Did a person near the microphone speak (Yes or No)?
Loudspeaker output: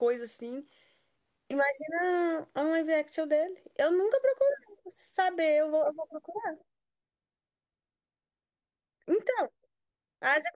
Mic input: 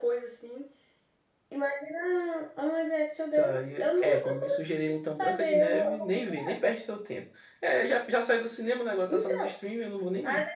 Yes